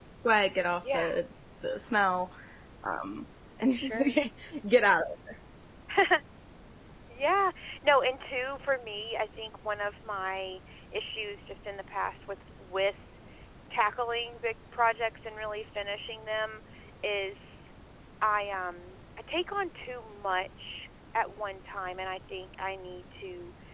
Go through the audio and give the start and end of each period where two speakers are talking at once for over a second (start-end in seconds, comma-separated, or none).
none